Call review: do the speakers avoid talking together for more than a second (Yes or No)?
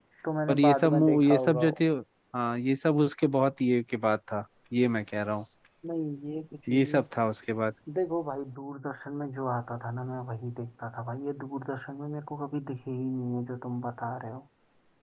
No